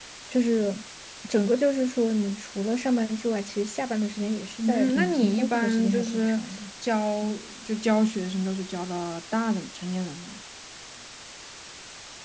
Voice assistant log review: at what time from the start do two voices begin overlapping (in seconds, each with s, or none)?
4.6 s